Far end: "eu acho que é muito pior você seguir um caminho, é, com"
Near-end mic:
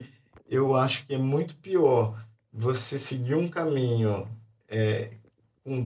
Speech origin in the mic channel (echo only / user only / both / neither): echo only